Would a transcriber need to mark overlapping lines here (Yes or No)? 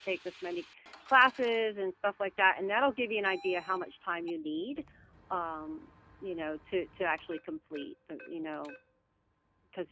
No